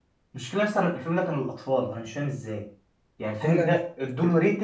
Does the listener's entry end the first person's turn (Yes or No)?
No